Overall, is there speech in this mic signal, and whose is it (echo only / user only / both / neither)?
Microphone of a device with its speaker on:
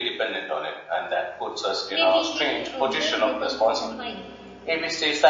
both